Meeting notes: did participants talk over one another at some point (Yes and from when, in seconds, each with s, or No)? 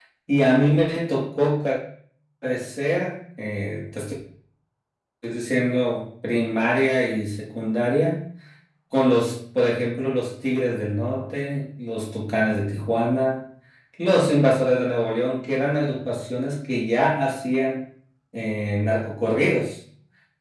No